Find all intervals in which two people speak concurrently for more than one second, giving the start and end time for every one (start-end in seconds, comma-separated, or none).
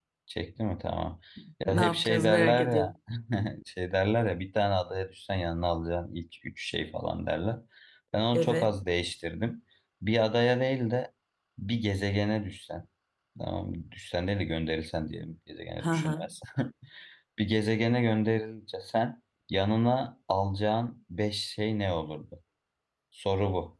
1.7-2.9